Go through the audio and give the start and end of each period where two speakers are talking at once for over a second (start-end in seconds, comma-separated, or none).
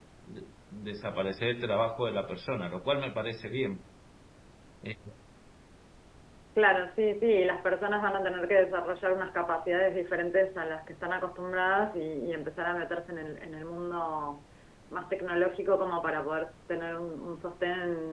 none